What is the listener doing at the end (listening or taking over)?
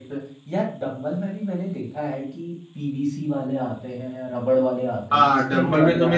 taking over